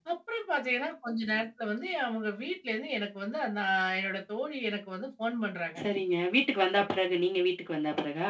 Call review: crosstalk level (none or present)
none